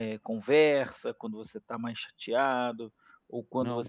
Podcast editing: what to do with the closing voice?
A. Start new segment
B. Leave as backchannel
B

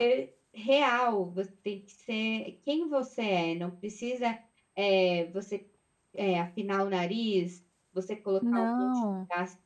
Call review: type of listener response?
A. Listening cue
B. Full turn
A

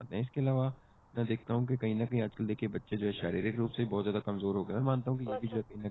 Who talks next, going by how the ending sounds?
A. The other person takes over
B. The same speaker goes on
B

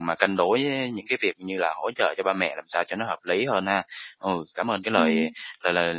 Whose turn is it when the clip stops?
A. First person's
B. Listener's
A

